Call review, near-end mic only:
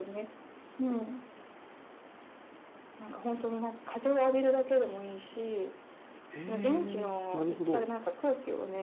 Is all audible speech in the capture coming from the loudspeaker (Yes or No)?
No